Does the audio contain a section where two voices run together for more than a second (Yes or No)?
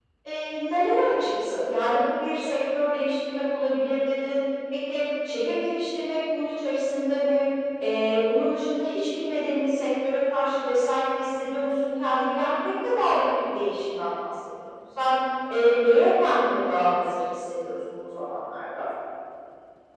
No